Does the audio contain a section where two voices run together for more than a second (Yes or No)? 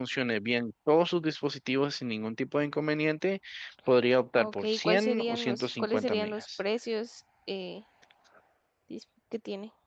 Yes